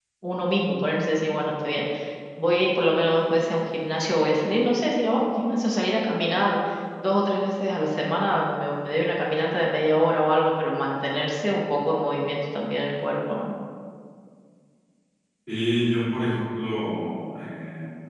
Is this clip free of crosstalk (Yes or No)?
Yes